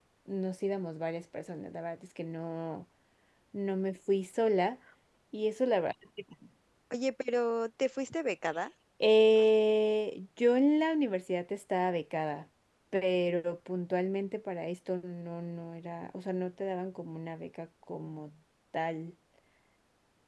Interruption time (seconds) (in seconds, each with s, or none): none